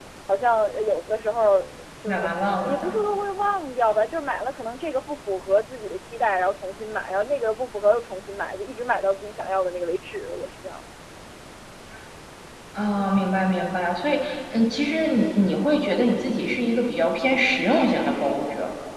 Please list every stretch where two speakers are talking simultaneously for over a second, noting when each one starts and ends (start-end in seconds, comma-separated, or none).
none